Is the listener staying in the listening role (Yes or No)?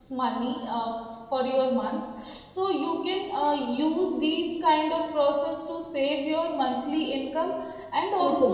Yes